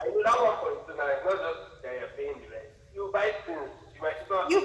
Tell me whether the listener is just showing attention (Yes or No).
No